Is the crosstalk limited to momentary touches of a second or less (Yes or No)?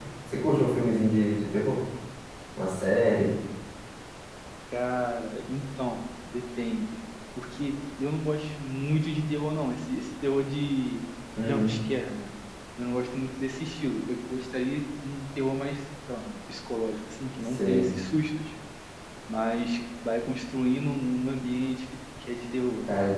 Yes